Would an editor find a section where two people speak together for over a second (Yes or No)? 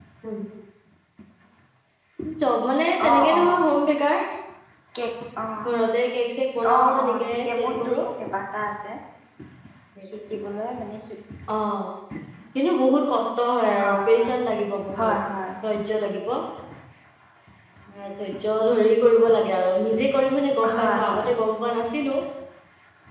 Yes